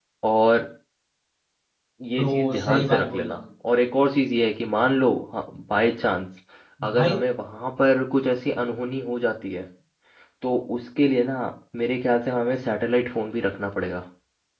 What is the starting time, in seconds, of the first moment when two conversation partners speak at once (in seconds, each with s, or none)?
2.2 s